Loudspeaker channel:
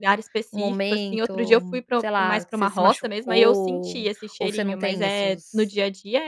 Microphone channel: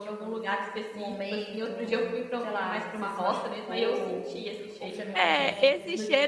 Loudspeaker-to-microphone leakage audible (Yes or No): Yes